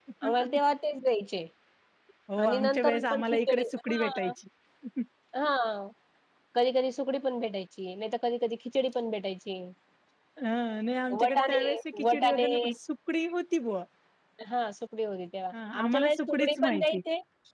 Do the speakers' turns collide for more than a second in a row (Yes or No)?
Yes